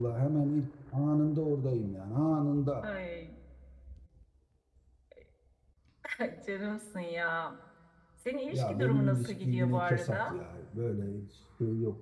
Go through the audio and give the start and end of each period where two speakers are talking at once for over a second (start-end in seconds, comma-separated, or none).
8.5-10.3